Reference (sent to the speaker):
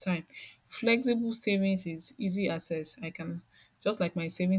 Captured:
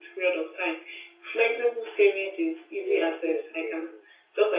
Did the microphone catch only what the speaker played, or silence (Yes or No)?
No